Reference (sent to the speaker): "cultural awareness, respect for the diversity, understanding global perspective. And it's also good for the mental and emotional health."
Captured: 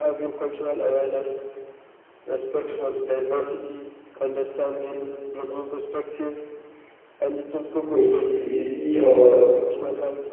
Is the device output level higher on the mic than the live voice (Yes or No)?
No